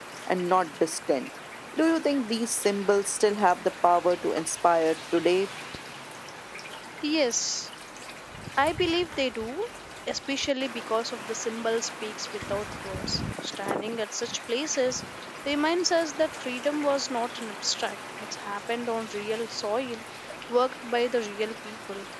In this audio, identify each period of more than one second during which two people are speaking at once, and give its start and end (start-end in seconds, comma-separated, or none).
none